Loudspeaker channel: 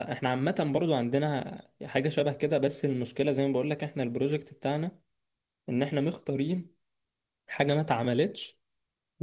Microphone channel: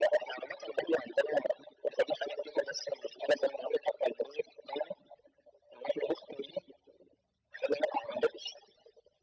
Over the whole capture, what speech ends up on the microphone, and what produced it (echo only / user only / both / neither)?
echo only